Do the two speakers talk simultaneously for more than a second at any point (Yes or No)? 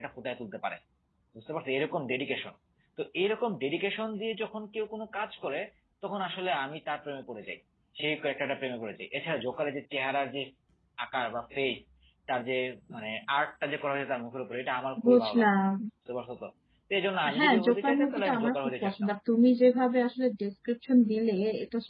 Yes